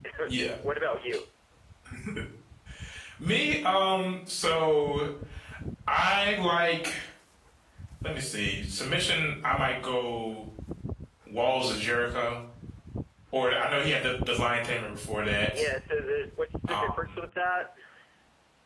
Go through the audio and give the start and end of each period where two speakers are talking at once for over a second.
none

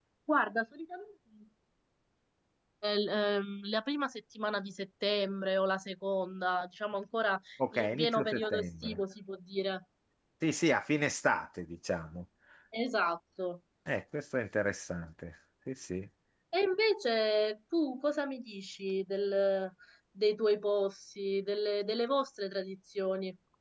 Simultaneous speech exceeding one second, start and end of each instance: 7.7-9.0

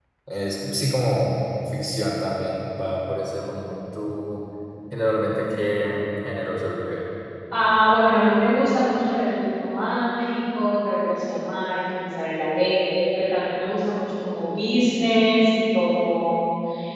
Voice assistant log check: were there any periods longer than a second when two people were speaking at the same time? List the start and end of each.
none

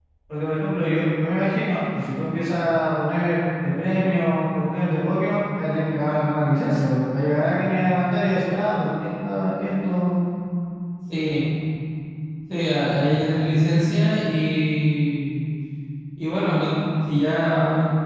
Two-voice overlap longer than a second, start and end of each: none

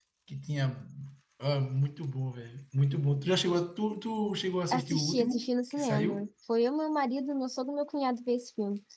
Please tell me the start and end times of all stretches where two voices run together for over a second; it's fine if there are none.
4.7-6.2

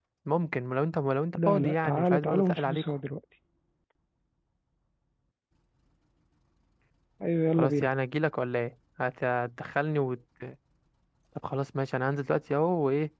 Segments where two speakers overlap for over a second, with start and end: 1.4-2.8

